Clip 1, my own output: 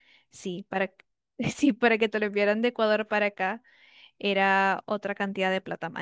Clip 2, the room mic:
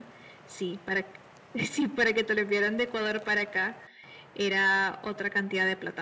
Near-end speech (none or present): none